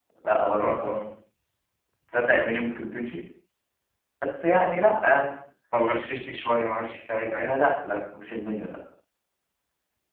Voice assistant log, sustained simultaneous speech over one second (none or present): none